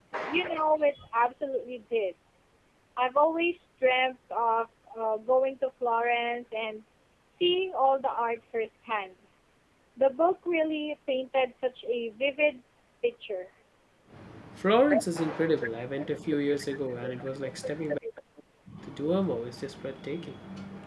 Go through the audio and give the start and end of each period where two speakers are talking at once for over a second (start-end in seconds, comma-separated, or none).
none